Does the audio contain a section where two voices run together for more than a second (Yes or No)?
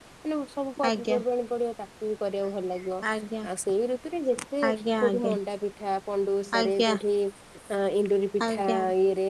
No